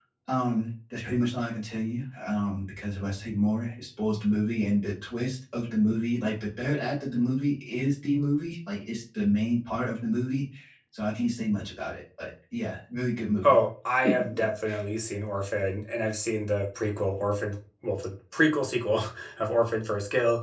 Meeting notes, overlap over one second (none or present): none